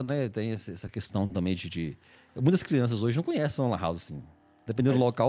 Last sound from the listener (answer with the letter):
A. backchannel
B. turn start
A